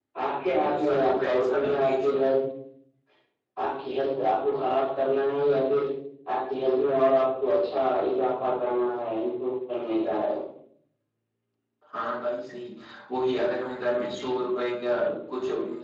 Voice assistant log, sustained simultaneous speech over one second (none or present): present